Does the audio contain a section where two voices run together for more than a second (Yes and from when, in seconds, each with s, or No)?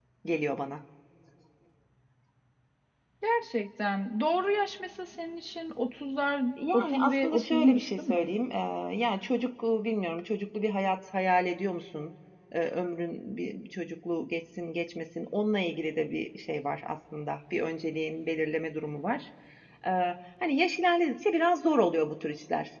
Yes, from 6.6 s